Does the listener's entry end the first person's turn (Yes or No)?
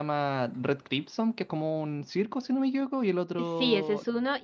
Yes